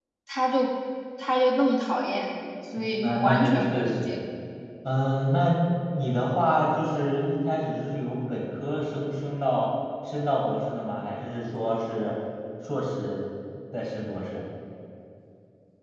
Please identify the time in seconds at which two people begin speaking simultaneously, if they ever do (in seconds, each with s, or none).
2.8 s